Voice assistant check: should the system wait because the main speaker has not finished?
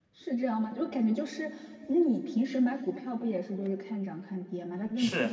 No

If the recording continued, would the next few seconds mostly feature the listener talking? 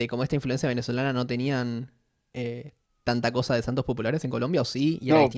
Yes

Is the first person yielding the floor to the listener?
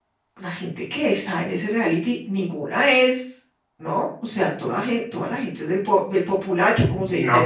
Yes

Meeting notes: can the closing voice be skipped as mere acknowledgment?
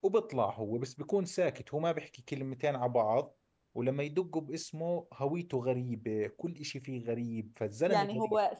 No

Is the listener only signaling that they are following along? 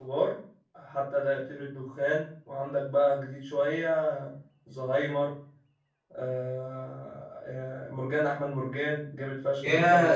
No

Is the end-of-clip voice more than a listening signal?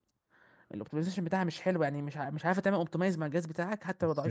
Yes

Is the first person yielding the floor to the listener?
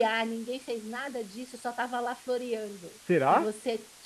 No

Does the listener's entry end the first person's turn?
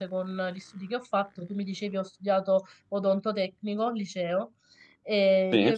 No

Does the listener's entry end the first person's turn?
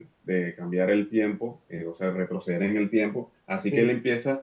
No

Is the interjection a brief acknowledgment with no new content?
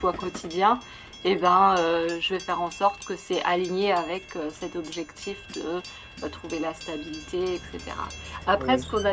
Yes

